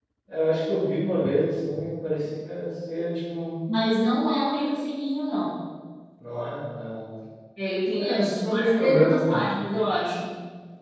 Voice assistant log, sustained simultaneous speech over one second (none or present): present